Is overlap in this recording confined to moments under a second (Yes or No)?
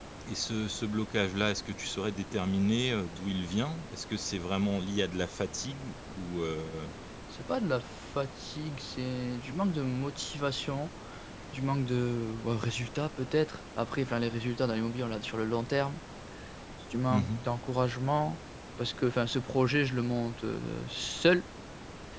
Yes